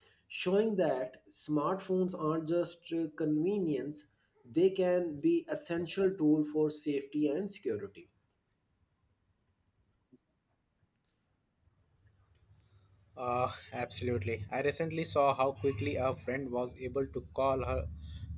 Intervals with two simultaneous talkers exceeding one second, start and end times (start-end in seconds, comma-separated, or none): none